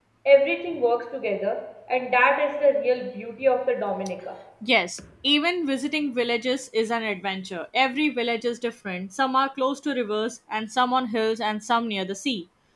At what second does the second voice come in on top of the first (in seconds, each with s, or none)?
none